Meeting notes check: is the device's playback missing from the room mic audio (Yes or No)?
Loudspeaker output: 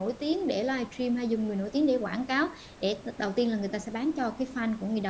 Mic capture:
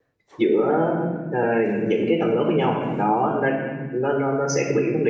Yes